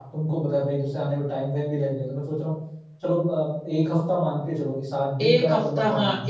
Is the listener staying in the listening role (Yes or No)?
No